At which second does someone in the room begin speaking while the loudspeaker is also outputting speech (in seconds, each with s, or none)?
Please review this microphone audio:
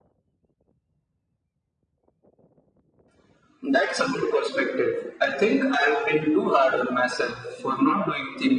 none